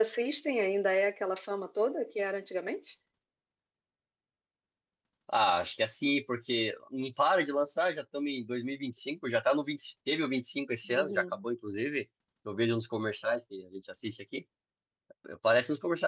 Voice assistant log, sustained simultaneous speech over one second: none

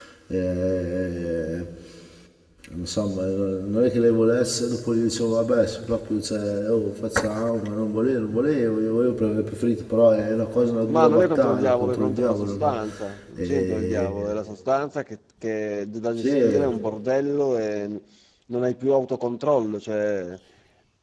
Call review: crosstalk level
present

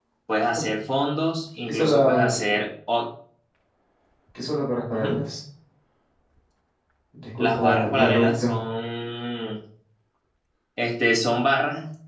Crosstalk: present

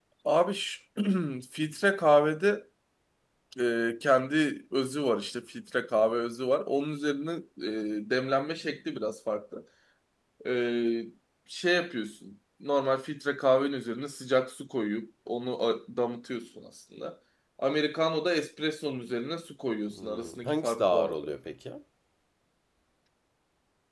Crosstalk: present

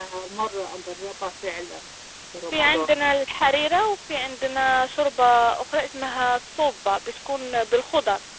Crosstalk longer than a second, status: none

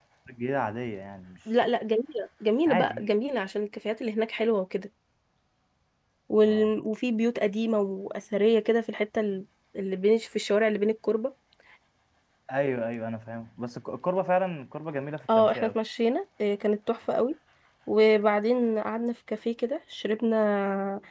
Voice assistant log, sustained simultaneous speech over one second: none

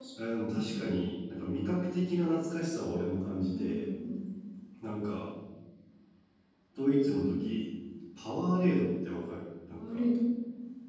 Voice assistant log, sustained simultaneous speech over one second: none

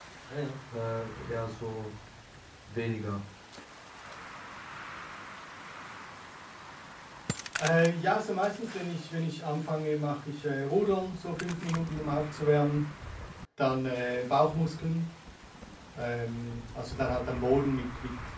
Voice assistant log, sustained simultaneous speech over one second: none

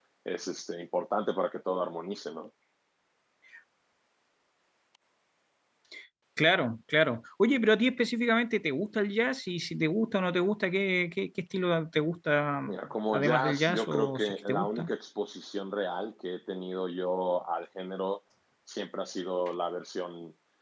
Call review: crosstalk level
present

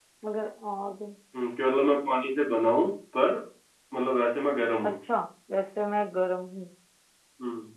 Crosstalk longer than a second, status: none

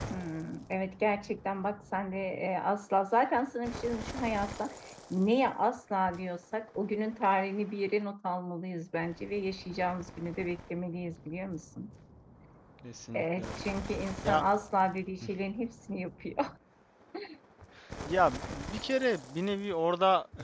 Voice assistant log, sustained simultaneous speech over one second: none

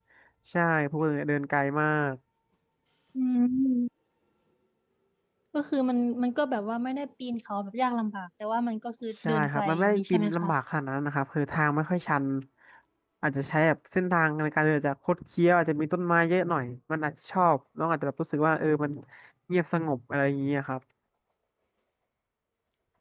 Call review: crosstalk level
present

